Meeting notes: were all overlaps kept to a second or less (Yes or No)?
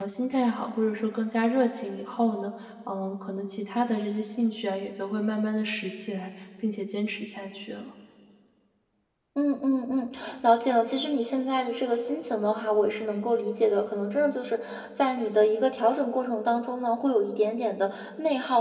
Yes